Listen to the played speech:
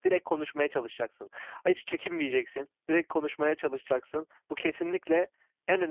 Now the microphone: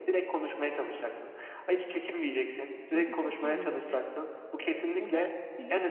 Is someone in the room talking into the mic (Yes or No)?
Yes